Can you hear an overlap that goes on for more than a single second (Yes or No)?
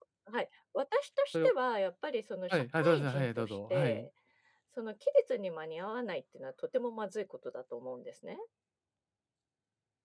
Yes